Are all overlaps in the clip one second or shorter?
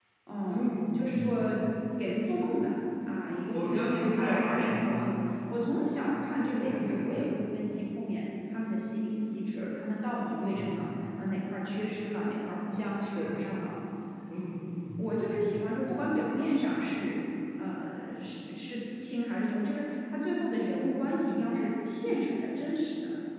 No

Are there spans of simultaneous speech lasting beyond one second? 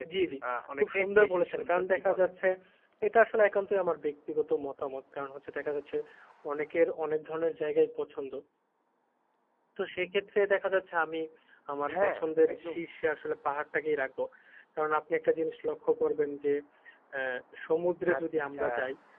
Yes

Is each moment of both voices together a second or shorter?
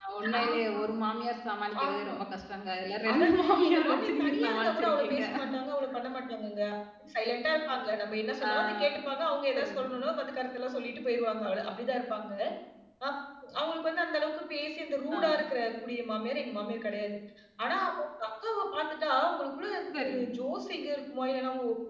No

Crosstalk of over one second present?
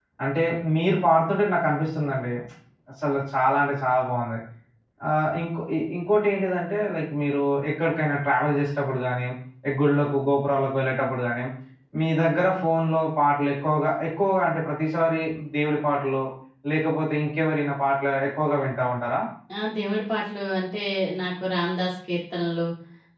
No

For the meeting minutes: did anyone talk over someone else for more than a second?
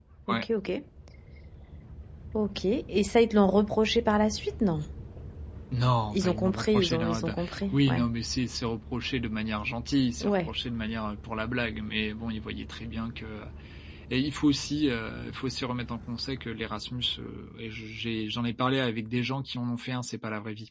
Yes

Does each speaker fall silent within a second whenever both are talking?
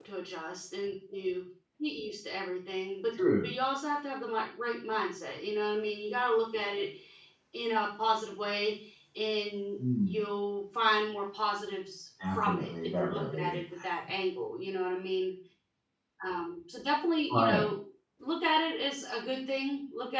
No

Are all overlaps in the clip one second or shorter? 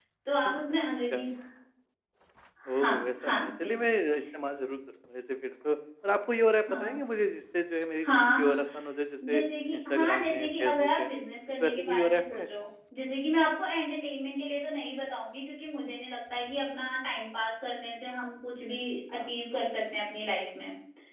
No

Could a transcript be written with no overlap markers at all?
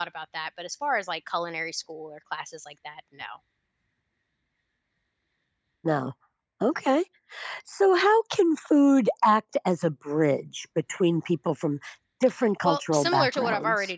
No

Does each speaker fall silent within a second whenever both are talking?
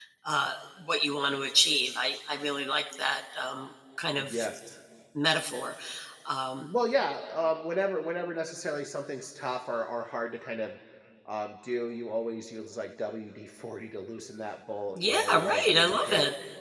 No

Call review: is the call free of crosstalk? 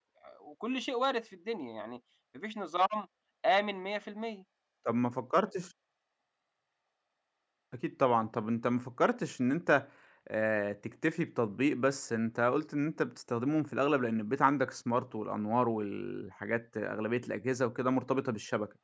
Yes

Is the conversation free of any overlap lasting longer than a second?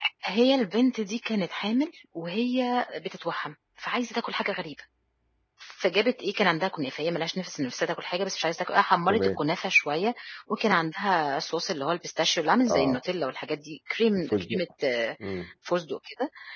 Yes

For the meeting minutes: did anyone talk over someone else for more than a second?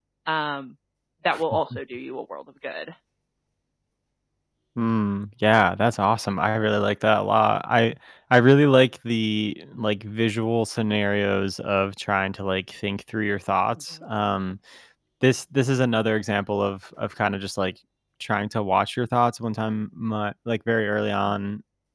No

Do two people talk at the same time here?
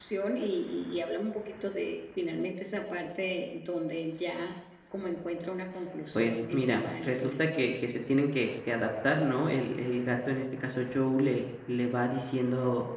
Yes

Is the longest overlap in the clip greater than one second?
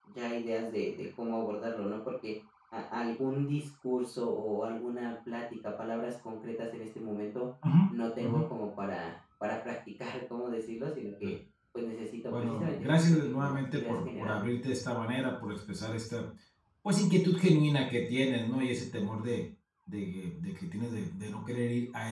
Yes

